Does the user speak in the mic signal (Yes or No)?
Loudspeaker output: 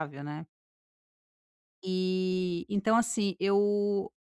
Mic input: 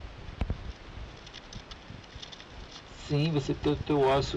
Yes